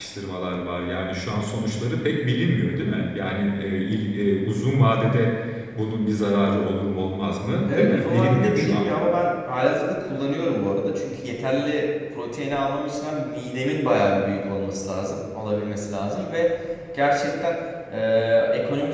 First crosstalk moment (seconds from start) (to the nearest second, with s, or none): 8 s